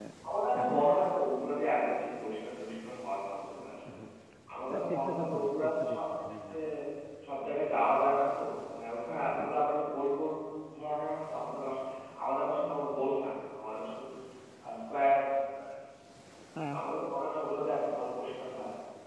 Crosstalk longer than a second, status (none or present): present